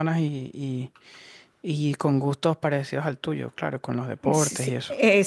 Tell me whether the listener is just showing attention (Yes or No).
No